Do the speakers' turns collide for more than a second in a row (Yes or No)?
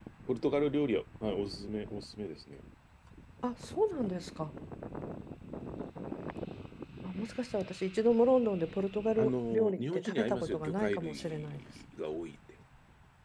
Yes